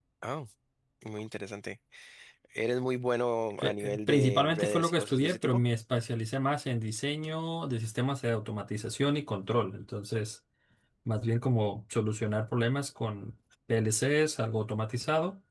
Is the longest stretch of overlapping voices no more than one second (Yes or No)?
No